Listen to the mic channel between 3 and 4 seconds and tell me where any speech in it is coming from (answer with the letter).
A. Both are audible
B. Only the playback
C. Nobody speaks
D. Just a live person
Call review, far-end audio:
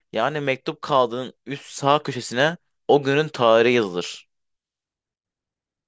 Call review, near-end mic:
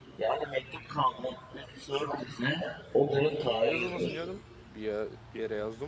A